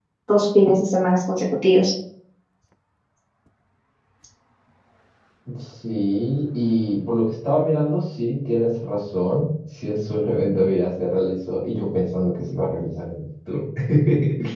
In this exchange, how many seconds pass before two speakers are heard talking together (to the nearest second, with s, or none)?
none